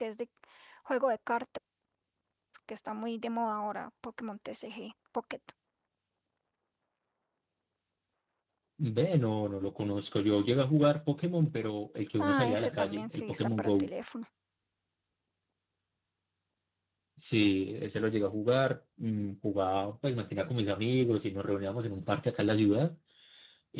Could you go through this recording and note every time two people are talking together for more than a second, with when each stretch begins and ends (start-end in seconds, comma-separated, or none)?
12.2-13.9